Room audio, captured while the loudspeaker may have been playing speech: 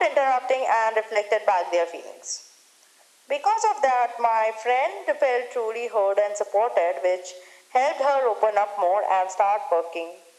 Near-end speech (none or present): none